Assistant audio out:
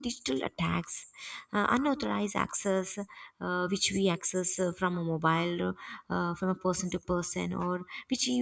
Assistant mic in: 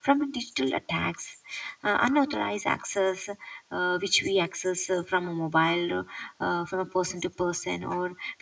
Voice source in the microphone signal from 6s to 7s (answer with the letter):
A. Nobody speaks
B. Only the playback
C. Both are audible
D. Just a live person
B